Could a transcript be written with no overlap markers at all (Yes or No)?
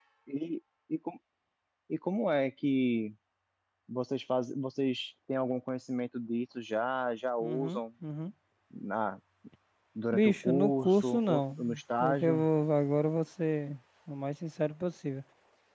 No